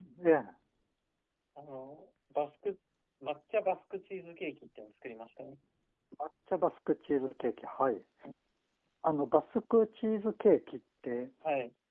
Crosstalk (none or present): none